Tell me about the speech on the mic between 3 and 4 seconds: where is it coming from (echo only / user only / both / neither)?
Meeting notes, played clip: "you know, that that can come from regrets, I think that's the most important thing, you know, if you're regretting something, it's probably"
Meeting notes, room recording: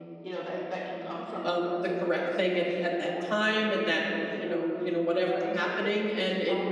both